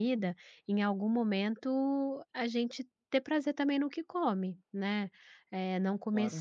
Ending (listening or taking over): listening